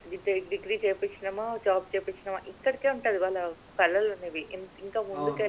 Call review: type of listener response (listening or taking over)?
listening